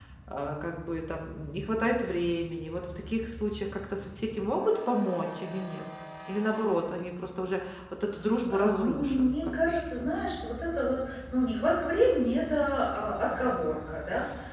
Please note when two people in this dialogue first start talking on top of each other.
9 s

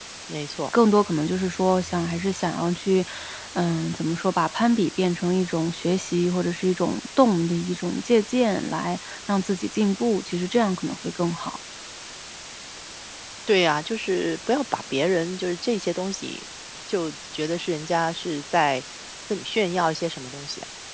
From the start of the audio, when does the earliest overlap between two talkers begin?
none

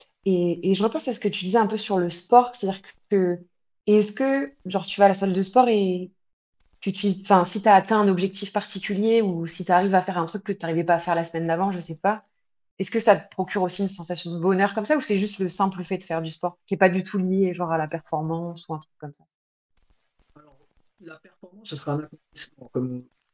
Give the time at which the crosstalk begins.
none

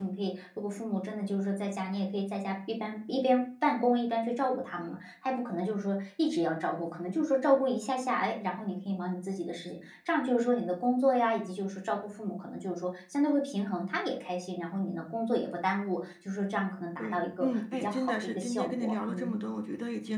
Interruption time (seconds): 17 s

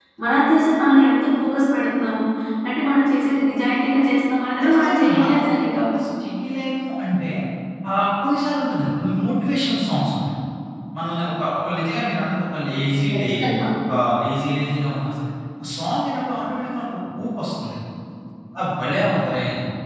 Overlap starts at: 5 s

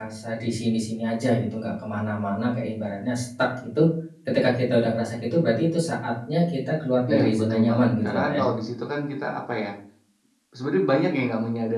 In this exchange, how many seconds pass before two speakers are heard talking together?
7 s

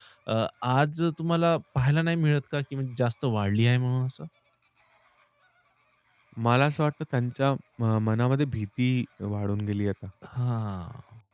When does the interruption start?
none

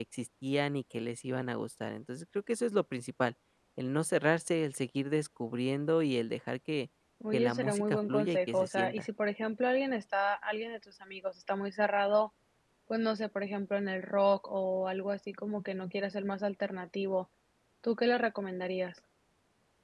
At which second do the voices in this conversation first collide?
7 s

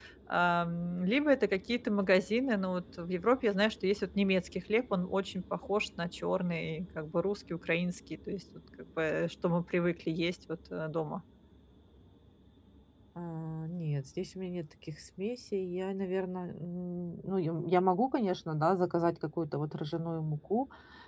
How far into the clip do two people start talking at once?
none

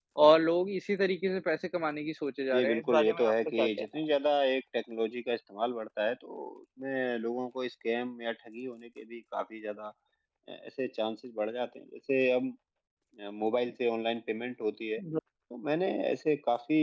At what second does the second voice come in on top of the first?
3 s

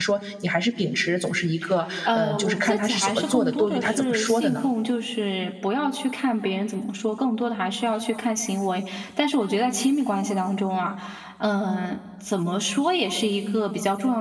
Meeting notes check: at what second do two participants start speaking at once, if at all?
2 s

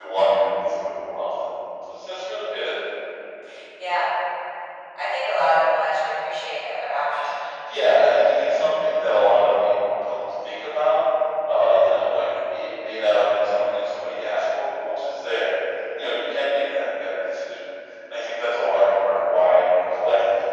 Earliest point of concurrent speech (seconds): none

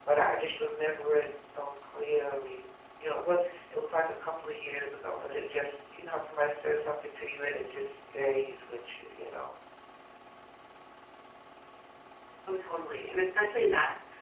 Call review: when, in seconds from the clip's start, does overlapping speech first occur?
none

